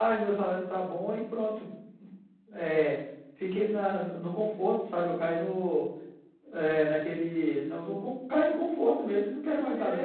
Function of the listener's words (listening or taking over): taking over